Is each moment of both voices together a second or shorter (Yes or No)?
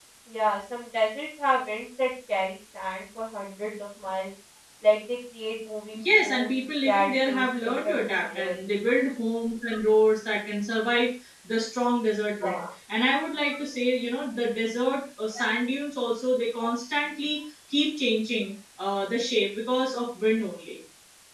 No